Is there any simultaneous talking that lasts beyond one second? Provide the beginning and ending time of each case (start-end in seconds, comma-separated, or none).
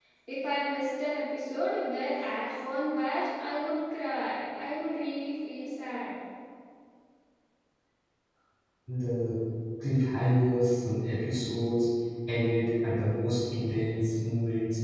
none